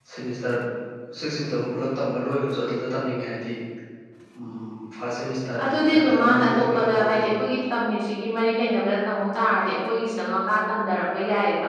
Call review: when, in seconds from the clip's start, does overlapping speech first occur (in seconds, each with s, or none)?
5.6 s